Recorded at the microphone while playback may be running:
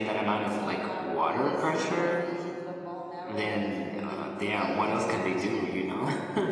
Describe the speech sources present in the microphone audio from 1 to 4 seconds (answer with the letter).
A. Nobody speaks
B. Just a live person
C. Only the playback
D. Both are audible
D